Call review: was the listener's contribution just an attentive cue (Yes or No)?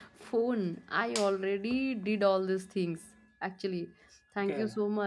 Yes